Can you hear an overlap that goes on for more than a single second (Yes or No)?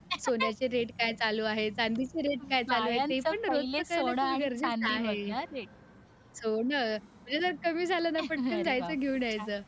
Yes